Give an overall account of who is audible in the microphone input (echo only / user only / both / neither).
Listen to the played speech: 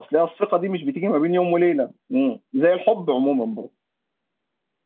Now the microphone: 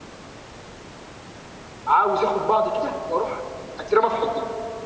user only